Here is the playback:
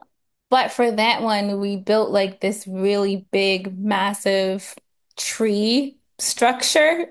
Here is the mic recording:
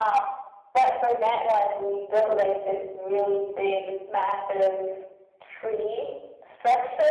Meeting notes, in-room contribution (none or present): none